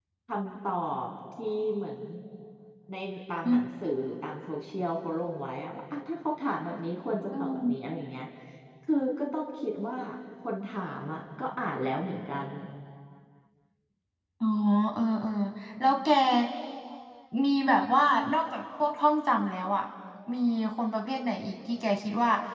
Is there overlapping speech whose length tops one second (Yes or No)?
No